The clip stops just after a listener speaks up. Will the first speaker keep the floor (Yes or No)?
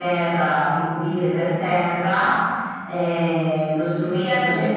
No